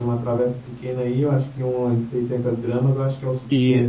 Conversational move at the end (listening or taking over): taking over